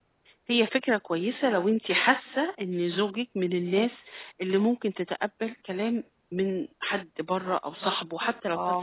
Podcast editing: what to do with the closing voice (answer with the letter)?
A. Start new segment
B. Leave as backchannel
A